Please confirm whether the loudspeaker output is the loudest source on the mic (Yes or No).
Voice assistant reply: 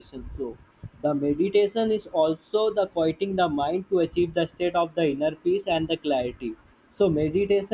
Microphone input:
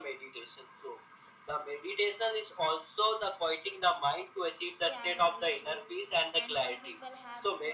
Yes